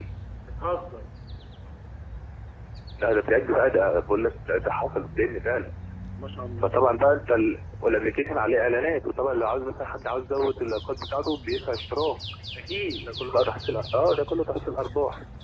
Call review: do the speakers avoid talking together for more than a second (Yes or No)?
Yes